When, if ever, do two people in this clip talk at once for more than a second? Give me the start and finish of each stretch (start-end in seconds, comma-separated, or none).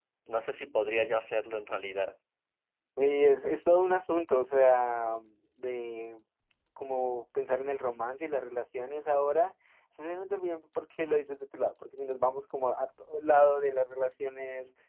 none